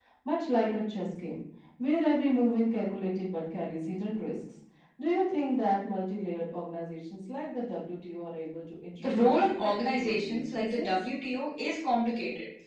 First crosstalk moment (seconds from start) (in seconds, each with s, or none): 9.0 s